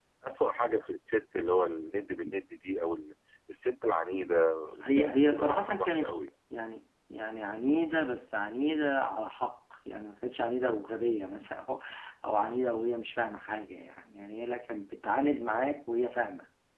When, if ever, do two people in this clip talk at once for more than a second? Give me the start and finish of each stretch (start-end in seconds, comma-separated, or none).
4.8-6.1